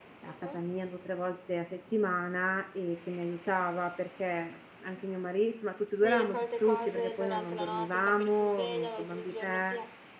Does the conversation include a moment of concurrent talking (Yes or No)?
Yes